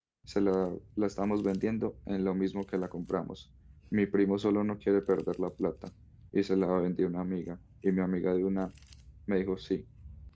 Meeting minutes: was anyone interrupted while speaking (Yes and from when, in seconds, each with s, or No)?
No